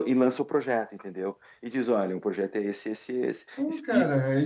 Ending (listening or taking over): taking over